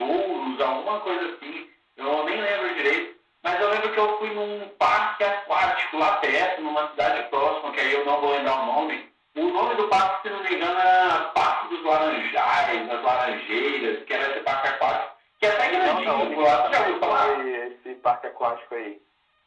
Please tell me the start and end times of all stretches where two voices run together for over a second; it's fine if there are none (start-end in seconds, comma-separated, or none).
15.8-17.4